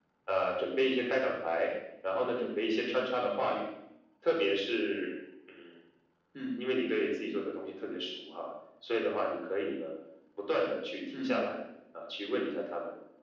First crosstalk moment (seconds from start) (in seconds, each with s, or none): 2.3 s